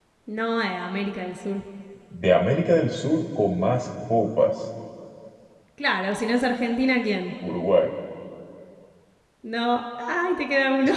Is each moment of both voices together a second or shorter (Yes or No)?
Yes